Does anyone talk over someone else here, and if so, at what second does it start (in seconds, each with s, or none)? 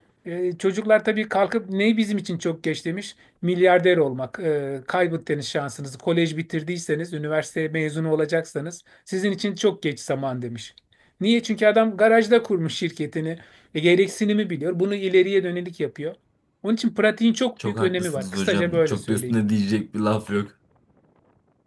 17.6 s